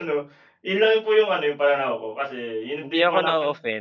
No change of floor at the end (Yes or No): No